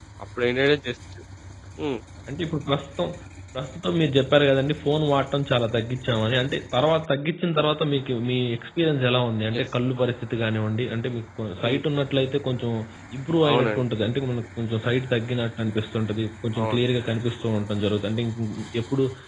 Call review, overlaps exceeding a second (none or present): none